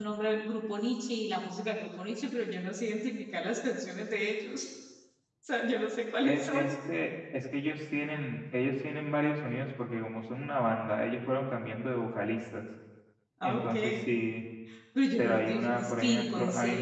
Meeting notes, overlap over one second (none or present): present